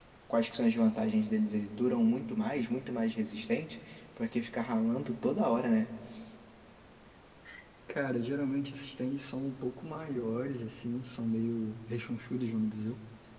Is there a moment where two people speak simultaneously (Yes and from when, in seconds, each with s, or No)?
No